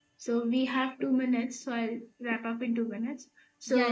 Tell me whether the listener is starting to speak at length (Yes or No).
No